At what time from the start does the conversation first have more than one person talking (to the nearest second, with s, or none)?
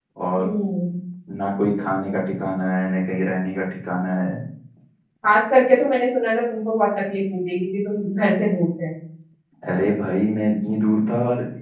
none